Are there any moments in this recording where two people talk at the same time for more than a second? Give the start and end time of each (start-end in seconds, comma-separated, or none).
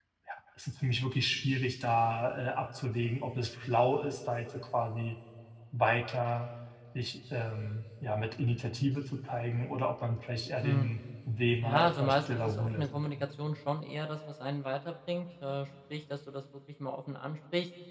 11.6-12.9